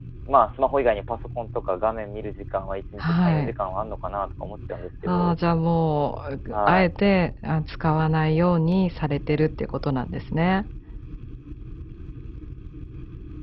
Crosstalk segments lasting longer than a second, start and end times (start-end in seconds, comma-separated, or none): none